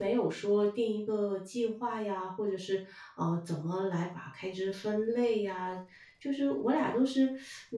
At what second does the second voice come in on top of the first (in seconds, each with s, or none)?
none